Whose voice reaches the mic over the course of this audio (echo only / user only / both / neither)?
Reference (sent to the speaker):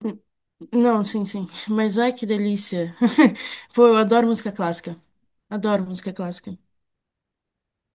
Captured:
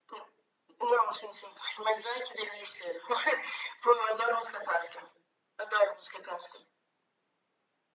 echo only